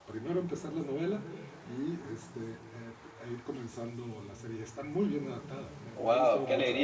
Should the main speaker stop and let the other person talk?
Yes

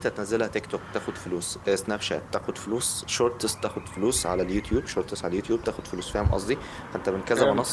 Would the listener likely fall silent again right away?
Yes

